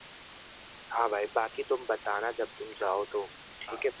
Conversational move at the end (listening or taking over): taking over